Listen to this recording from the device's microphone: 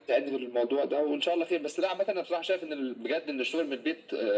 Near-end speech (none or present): none